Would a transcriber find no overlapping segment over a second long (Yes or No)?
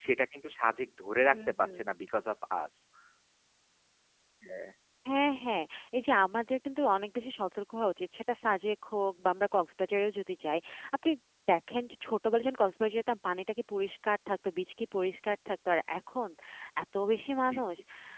Yes